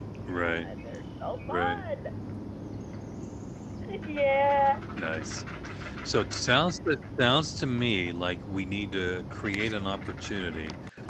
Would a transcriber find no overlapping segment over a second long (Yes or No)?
Yes